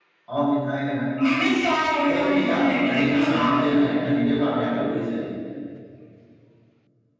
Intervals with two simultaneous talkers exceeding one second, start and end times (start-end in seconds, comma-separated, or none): 2.1-3.8